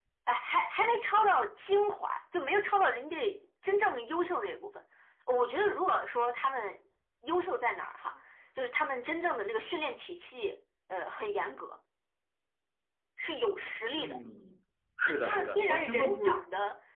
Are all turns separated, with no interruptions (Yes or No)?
No